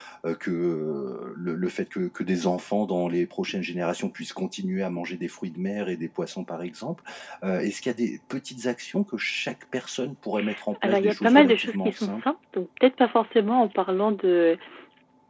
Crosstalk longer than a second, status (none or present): present